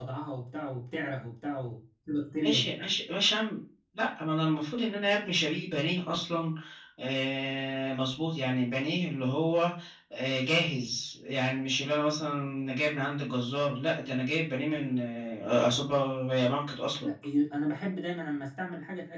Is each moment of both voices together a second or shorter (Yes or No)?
Yes